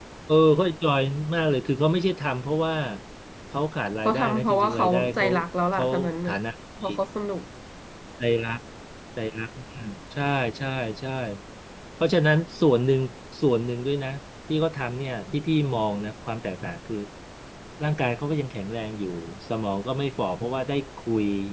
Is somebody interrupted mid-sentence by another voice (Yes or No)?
Yes